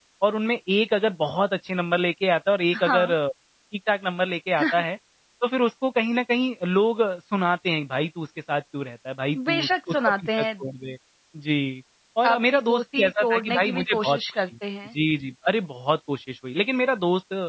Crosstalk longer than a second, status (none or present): present